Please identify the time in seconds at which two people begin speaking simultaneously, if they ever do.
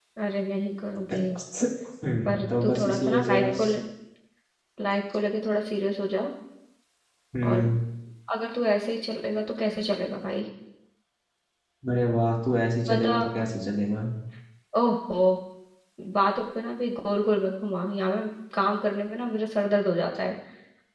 2.2 s

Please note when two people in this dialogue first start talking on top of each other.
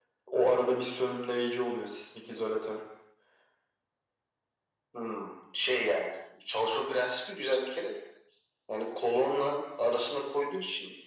none

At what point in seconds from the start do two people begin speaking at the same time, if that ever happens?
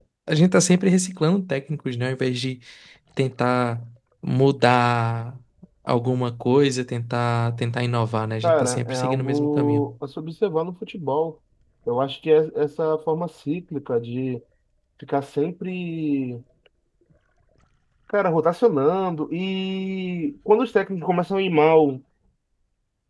8.4 s

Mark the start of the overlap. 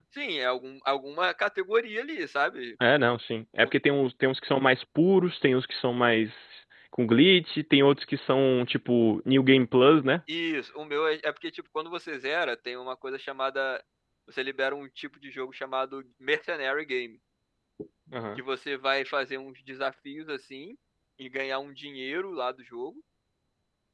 none

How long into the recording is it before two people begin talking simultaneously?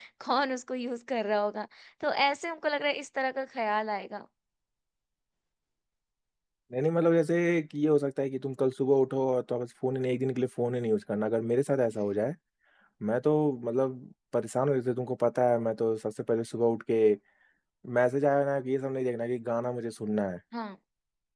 none

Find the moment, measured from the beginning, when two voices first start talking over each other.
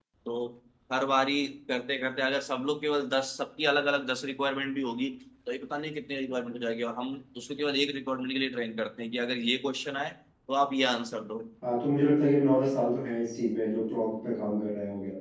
none

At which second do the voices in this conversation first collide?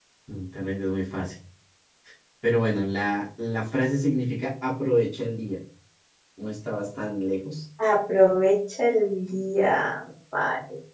none

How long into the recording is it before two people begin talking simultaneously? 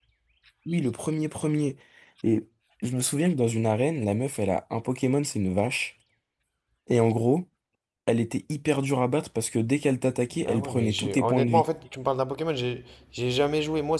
10.3 s

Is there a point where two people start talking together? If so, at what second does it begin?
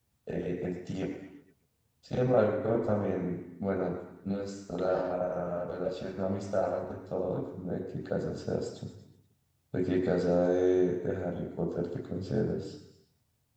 none

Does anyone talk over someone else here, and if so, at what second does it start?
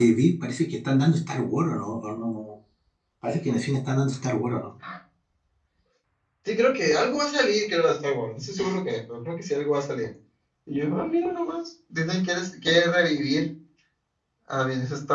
none

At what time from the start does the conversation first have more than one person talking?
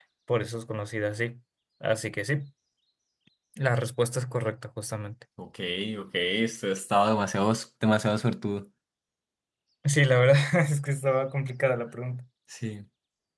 none

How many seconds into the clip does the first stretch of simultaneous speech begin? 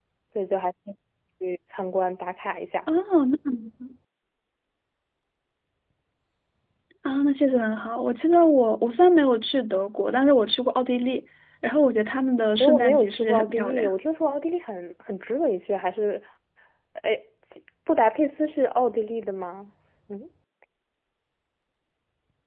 12.6 s

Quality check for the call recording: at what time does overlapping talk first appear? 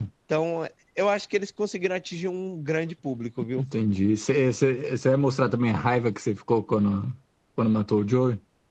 none

